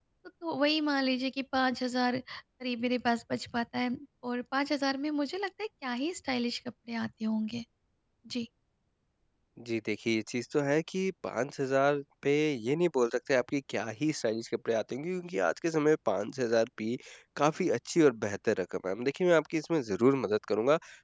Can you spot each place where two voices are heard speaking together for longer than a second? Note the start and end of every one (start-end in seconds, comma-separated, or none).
none